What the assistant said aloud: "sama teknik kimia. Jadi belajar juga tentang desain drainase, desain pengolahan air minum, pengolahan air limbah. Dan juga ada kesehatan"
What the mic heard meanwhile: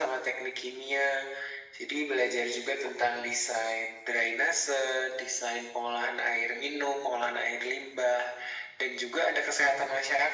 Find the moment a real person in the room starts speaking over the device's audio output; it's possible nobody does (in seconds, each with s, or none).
none